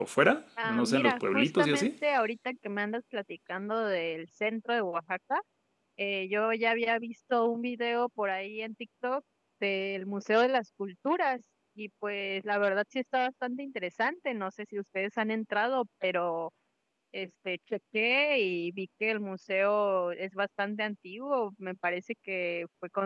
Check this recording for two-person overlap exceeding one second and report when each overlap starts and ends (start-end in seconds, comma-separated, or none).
0.6-1.9